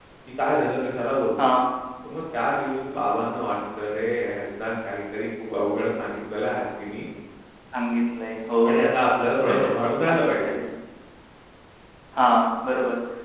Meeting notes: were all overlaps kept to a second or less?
Yes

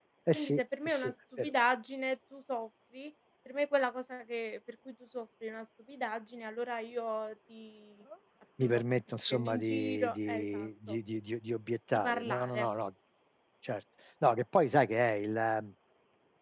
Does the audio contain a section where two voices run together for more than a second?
Yes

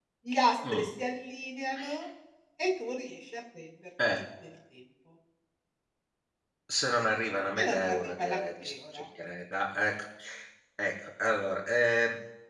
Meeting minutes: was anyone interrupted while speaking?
Yes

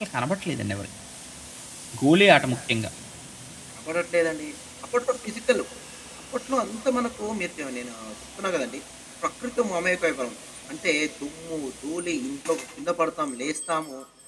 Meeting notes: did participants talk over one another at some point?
No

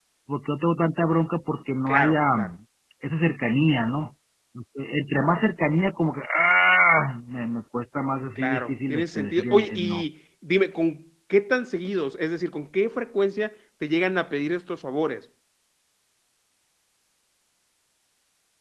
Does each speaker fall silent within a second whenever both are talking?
No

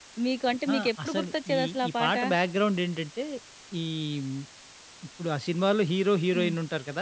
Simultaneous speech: Yes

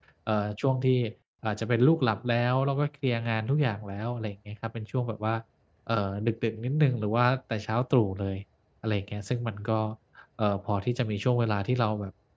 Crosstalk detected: No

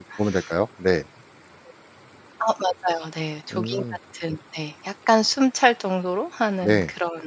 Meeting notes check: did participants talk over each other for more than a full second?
No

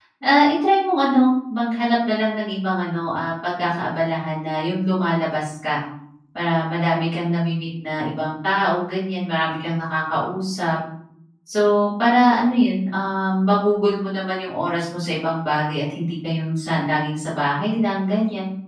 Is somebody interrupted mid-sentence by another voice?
No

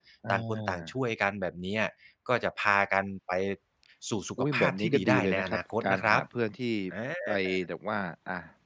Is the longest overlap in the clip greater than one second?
Yes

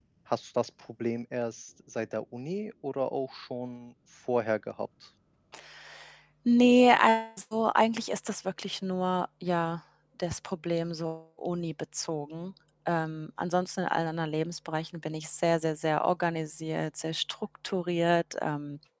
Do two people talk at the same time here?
No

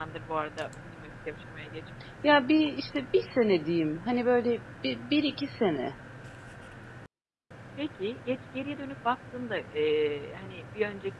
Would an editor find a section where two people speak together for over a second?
No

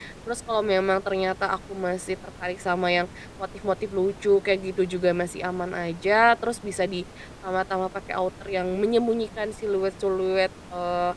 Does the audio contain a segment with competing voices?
No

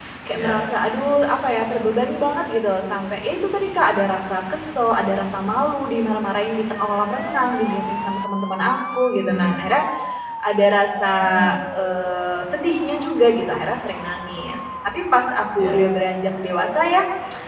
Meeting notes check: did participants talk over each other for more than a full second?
No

